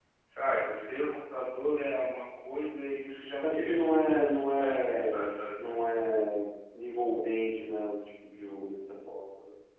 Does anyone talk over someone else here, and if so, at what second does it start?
3.4 s

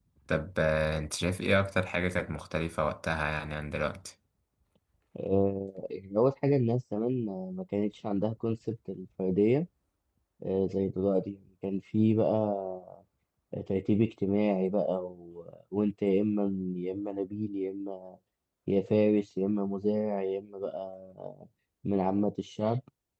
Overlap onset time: none

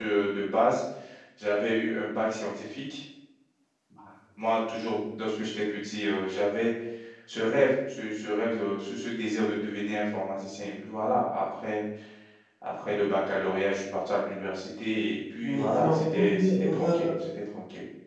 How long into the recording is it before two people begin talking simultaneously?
15.4 s

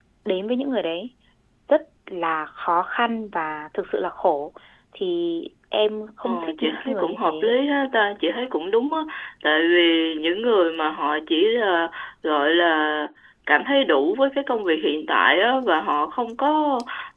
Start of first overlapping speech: 6.2 s

